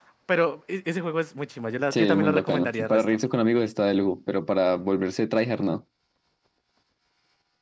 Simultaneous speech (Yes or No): Yes